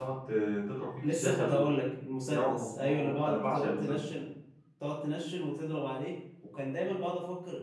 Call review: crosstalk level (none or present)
present